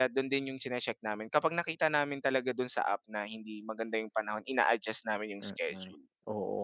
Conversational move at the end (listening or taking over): taking over